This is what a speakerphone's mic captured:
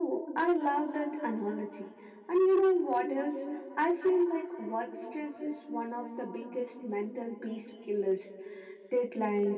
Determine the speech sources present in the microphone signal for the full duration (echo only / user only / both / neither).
echo only